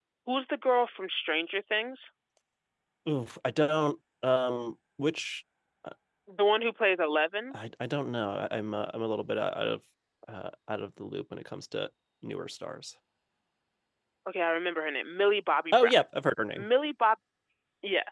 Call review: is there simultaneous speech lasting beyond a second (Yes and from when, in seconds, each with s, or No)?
No